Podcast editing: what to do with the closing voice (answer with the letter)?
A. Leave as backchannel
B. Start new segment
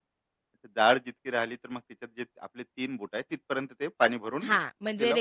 B